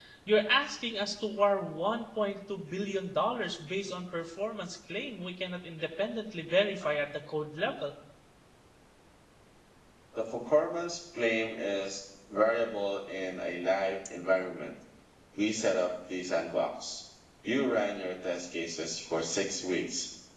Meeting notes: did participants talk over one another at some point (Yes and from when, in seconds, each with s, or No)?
No